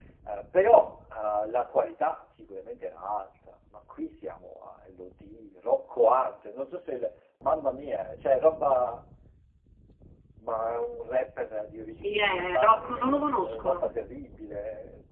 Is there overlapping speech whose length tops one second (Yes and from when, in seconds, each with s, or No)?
Yes, from 12.0 s